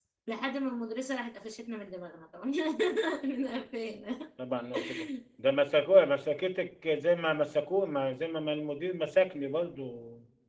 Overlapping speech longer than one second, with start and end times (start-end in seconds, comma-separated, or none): none